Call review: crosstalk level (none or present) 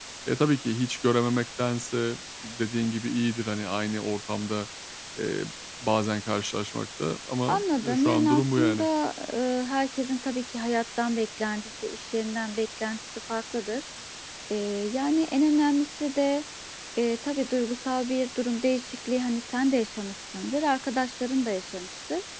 present